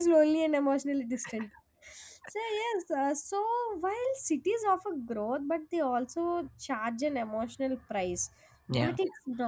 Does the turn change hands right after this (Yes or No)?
No